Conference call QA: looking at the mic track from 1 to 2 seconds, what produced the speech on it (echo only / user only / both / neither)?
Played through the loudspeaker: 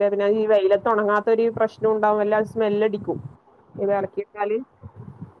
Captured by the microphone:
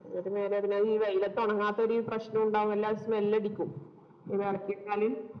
echo only